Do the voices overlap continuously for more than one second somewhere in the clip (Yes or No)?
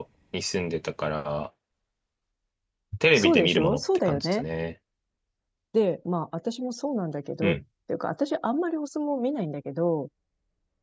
Yes